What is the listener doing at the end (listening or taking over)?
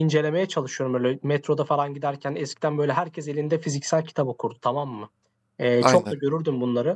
listening